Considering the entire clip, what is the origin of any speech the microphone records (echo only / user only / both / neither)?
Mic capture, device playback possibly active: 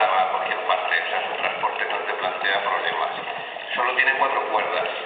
echo only